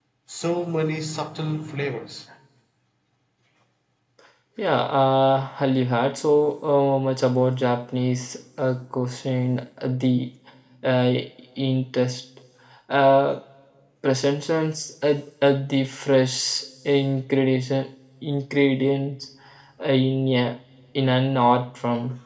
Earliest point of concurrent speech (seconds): none

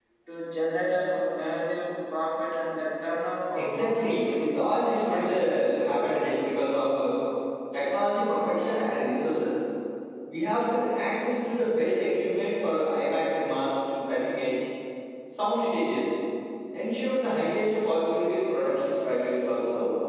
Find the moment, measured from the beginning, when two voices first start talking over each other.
4 s

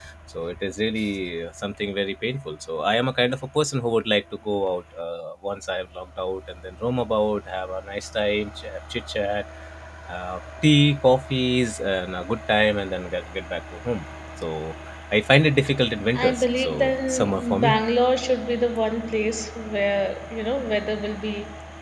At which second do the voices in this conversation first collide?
16 s

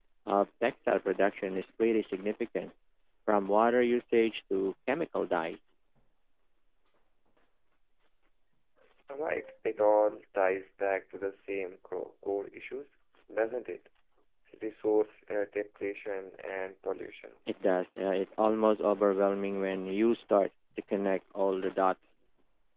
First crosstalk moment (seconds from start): none

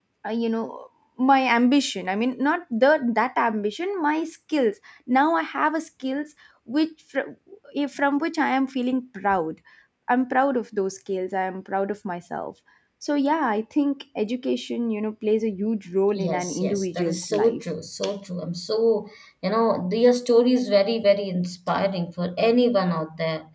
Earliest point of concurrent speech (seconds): 16 s

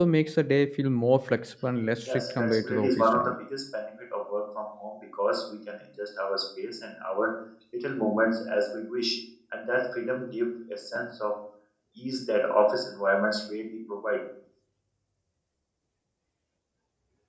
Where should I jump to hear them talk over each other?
2 s

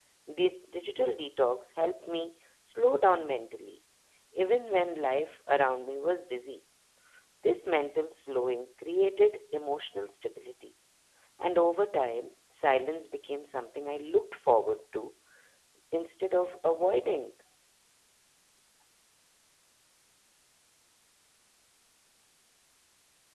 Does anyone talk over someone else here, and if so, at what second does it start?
none

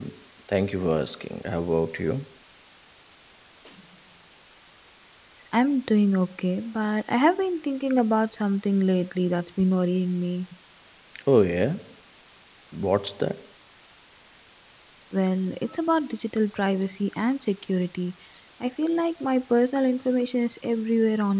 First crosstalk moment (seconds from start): none

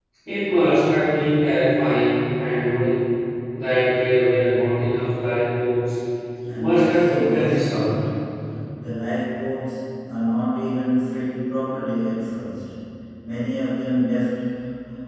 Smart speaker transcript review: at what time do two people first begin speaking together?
7 s

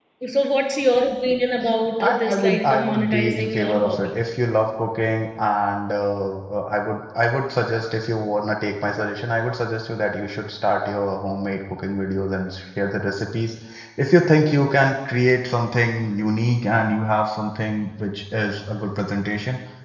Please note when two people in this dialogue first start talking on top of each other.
2 s

